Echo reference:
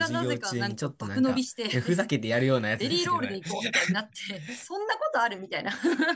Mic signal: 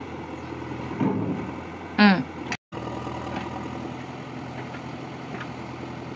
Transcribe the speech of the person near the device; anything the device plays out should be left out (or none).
うん、